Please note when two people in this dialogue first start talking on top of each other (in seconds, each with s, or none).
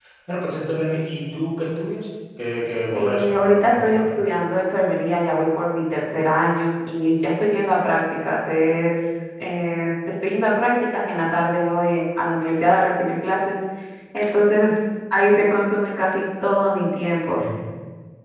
2.9 s